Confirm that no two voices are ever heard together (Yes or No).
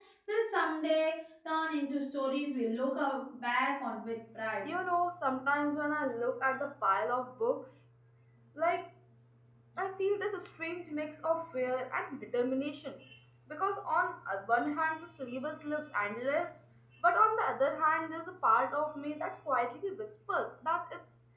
Yes